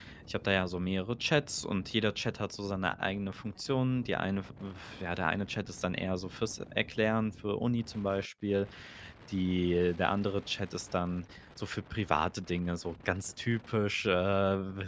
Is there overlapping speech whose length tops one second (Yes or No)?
No